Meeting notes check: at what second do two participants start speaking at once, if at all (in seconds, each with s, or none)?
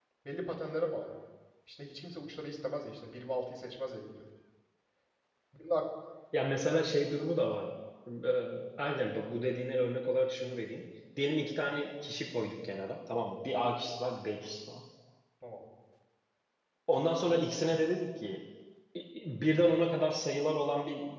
none